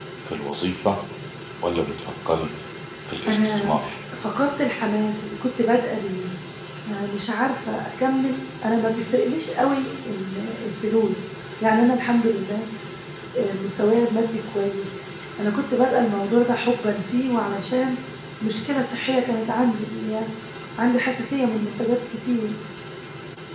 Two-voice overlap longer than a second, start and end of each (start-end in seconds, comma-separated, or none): none